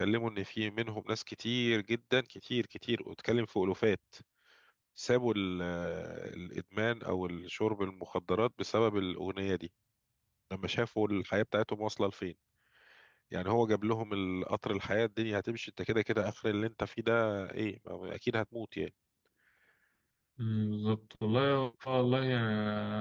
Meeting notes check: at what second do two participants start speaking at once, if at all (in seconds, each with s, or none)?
none